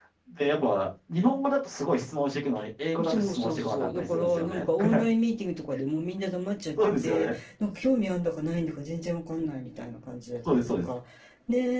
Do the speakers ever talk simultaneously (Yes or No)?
Yes